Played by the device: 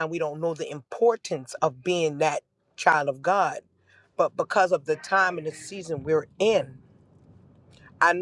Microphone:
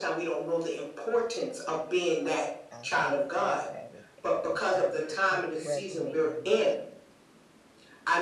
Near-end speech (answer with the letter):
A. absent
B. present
B